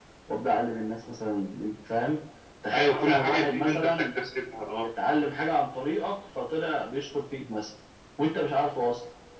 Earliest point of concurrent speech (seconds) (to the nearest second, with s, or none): 3 s